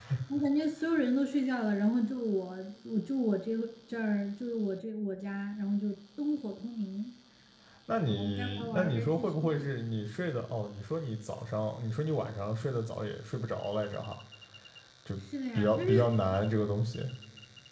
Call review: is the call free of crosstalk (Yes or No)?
No